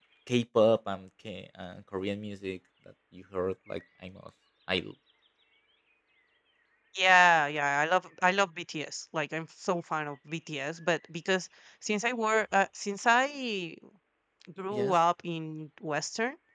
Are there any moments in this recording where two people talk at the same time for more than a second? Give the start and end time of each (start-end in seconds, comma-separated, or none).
none